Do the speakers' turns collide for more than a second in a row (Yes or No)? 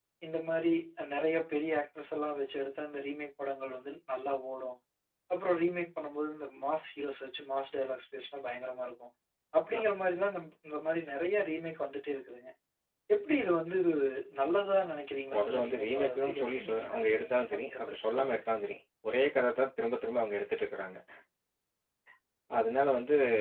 Yes